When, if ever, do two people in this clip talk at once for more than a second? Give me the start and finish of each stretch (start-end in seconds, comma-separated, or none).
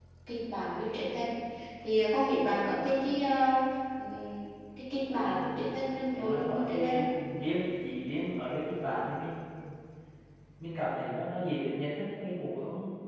5.2-7.1